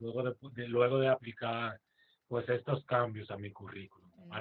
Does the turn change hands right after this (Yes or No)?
Yes